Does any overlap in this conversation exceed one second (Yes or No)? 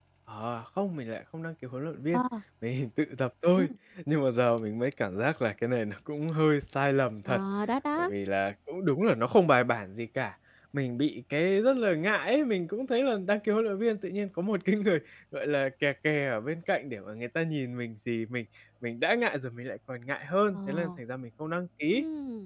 No